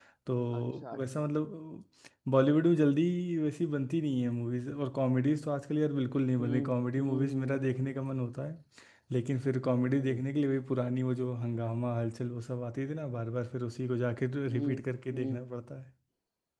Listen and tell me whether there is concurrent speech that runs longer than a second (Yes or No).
Yes